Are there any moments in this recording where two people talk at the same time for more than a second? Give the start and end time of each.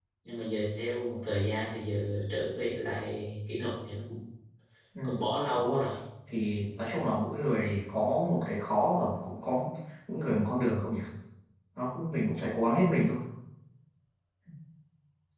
none

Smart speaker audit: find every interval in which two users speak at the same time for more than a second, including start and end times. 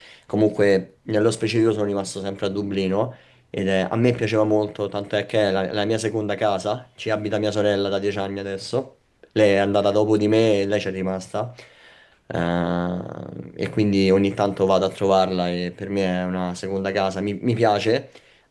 none

